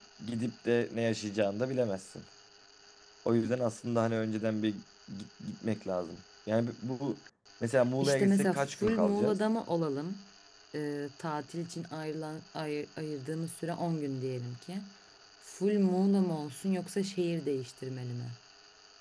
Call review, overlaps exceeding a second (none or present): present